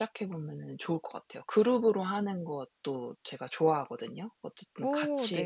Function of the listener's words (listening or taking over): listening